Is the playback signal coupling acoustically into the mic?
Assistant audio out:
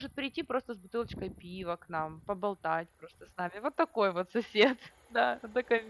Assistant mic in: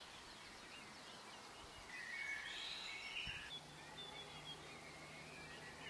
No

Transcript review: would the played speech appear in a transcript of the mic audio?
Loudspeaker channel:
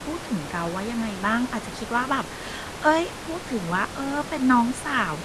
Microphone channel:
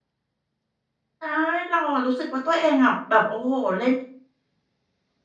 No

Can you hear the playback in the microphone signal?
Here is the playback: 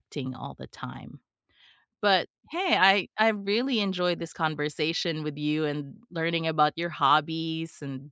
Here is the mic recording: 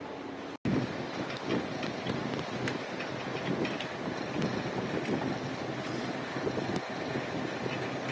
No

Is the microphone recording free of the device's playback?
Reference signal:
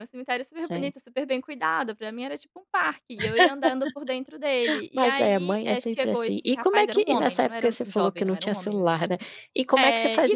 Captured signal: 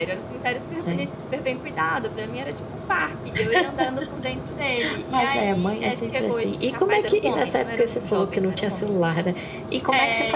No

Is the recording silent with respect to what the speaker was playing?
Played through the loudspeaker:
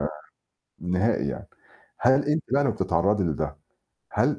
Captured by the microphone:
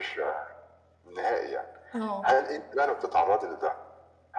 No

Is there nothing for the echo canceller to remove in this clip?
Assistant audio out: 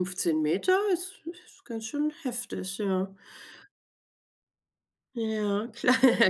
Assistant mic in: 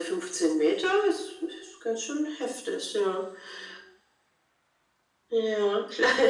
No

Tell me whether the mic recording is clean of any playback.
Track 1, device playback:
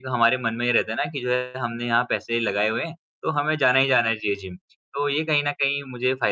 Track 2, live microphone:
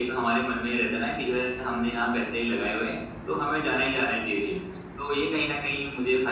No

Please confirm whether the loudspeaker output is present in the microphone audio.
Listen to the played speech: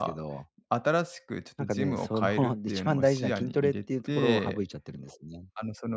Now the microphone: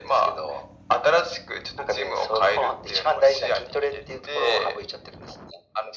Yes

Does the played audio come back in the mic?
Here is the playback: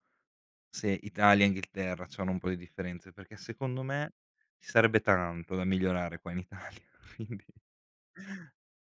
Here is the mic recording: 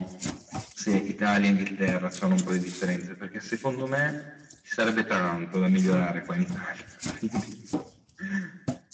Yes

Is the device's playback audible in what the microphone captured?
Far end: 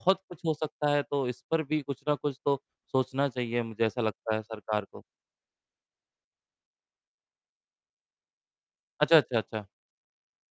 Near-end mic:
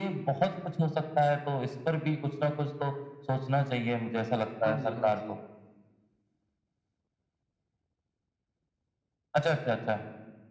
Yes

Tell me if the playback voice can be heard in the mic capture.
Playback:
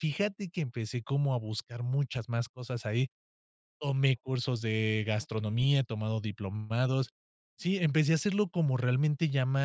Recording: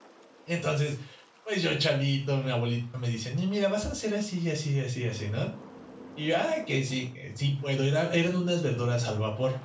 No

